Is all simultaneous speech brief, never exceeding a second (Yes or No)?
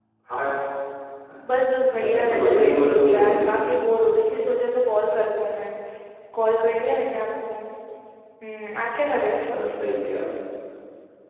No